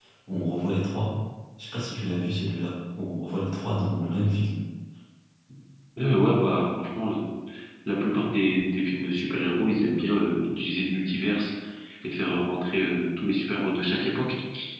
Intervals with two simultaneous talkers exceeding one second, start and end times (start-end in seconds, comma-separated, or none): none